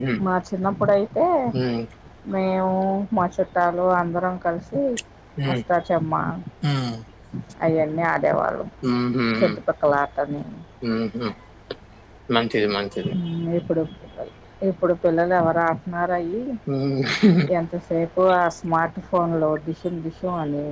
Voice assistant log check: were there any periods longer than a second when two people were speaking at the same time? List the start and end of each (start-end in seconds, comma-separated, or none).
none